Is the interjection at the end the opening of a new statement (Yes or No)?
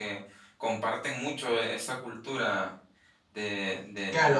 Yes